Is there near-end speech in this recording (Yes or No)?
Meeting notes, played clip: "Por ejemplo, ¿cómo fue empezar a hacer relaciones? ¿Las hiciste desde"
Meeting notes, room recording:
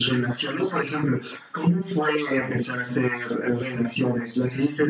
No